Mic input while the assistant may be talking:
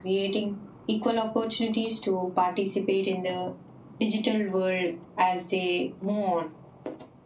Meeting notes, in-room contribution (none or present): none